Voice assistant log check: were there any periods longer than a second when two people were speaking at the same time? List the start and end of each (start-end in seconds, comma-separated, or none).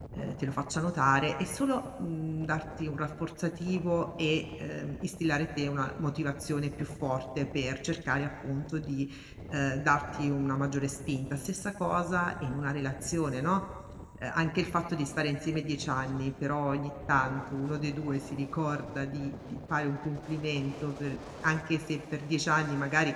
none